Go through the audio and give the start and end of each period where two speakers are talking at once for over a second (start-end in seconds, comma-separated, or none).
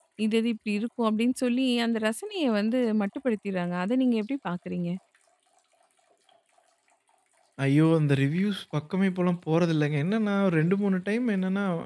none